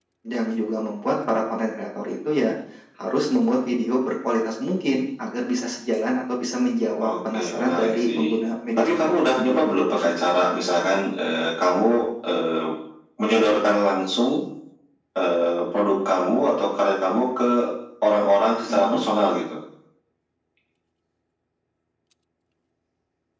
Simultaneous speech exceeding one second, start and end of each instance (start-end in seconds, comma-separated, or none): 7.0-8.3, 8.7-10.3